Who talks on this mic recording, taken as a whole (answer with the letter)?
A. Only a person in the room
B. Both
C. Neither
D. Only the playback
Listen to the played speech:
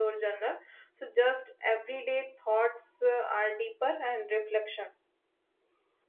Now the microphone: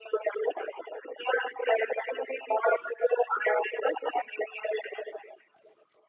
D